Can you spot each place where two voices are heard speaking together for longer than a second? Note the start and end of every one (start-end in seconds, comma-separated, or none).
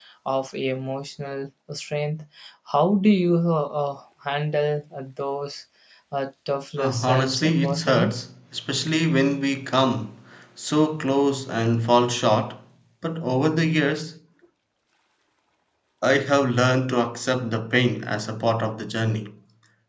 6.8-8.1